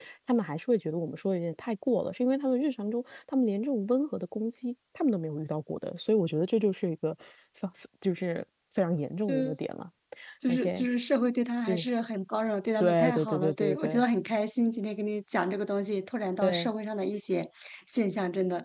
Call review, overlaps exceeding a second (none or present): present